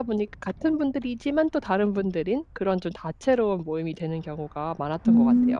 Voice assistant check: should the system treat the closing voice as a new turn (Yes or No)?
Yes